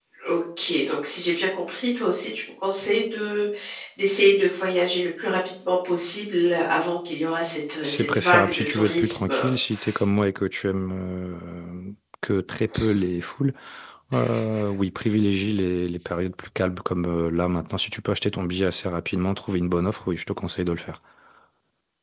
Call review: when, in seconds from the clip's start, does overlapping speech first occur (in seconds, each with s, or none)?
7.8 s